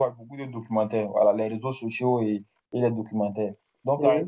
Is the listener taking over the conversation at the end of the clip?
No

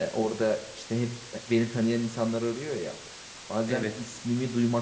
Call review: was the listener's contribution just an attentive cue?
Yes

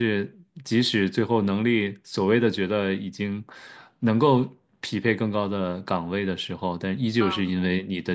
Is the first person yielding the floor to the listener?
No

